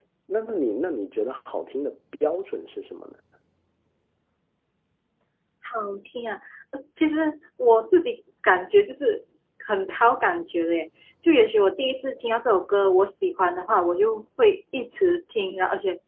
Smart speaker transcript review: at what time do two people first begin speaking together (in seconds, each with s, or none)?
none